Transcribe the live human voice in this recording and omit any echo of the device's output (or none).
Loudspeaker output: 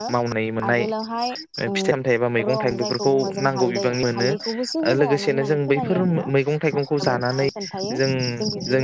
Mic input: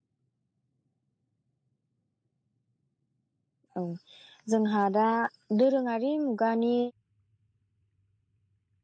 औ जोंहा दा दोरोङारि मुगानि